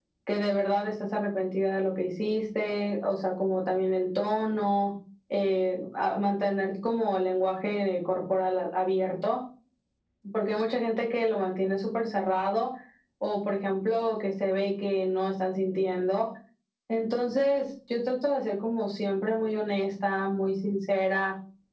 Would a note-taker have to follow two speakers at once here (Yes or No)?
No